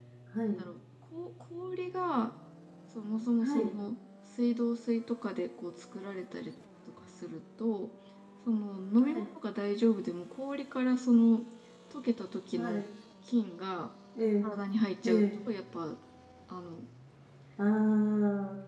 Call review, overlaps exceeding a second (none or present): none